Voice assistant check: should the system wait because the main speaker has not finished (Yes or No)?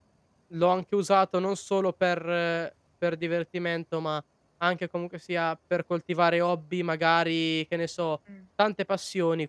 Yes